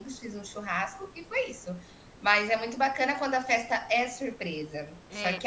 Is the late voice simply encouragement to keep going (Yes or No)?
Yes